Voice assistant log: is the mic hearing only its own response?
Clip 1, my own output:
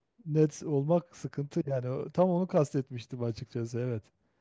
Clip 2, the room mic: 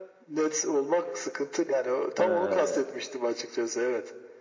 No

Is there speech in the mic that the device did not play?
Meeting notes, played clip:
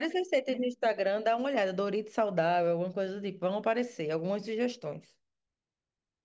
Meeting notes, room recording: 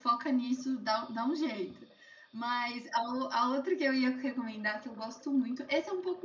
Yes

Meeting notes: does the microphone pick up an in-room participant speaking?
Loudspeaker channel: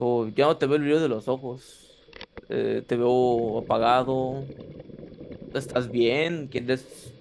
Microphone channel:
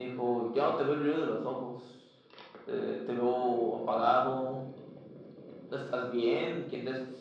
No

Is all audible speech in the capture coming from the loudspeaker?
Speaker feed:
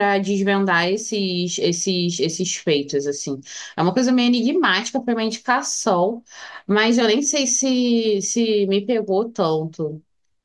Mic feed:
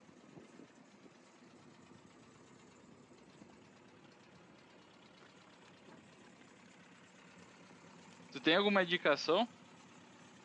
No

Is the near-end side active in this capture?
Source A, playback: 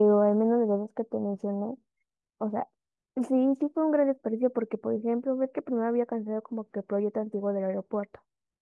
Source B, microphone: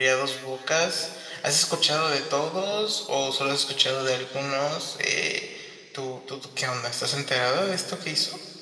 Yes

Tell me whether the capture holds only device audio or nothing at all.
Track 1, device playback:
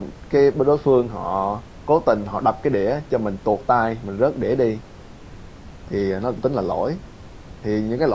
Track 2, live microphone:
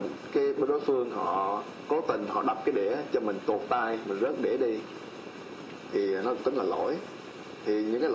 Yes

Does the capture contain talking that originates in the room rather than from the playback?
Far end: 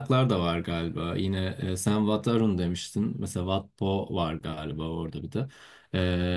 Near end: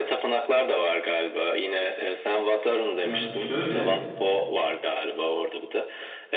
Yes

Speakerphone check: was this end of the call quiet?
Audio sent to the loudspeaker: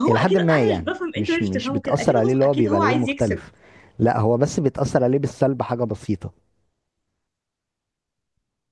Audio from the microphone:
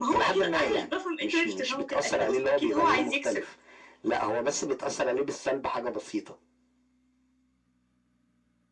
Yes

